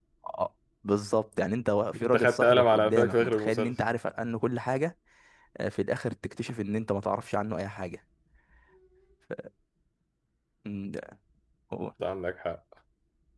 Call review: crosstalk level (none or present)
present